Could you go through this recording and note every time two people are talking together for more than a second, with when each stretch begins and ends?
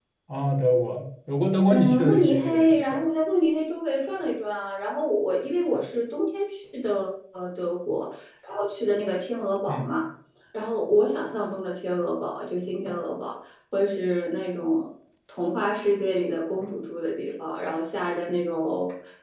1.7-3.0

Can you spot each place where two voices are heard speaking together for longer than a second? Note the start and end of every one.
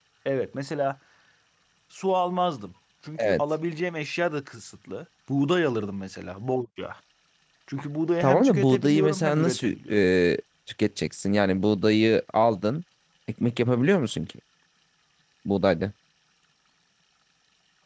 8.2-10.0

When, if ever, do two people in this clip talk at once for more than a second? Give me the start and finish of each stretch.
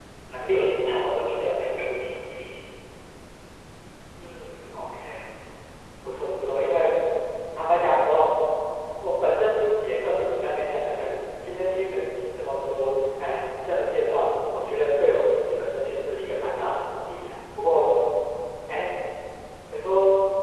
none

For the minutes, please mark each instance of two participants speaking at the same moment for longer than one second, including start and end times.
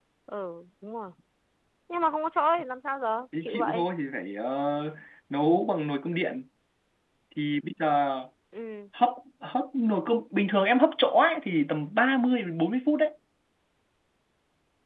none

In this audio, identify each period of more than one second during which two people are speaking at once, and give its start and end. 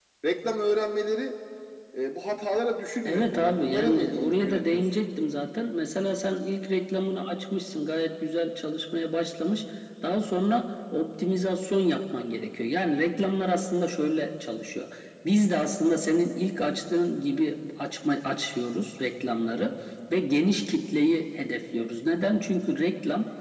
3.0-4.9

